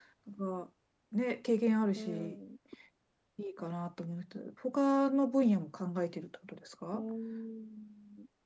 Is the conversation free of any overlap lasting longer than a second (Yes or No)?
Yes